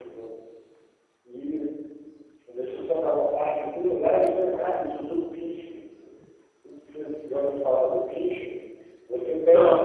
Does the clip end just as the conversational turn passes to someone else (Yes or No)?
No